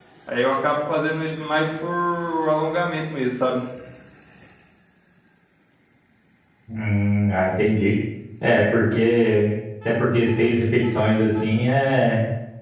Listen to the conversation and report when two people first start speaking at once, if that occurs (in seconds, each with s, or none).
none